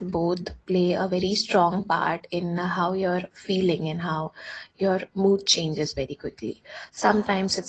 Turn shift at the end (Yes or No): No